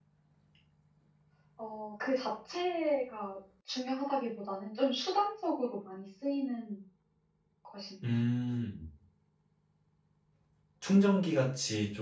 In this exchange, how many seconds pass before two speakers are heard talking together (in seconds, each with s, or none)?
none